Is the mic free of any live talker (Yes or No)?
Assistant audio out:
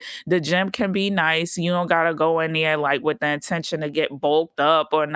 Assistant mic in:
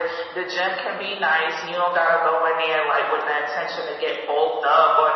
Yes